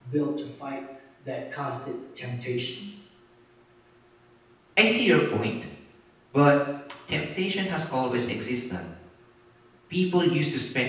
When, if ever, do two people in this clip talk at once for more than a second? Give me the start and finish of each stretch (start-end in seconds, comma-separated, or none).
none